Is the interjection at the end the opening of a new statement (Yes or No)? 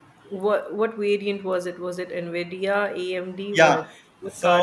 Yes